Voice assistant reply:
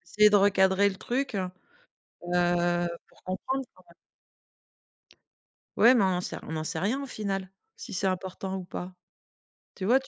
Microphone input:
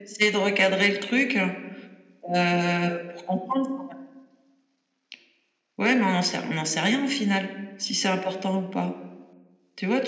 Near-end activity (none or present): none